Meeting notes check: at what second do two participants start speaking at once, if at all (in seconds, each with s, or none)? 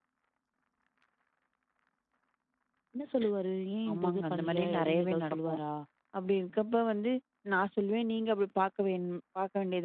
3.9 s